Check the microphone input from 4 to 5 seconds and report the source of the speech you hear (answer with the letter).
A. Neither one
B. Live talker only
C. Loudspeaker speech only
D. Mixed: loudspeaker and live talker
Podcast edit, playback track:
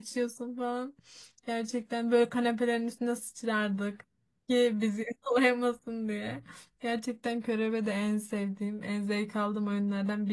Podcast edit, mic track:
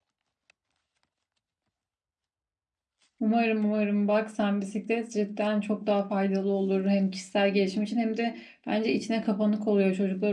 B